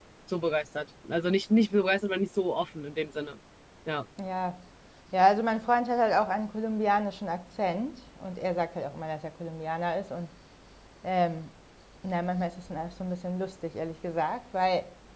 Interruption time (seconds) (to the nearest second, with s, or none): none